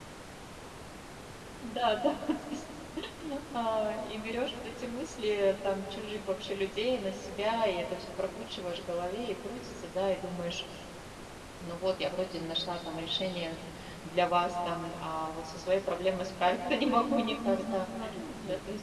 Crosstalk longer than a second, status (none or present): present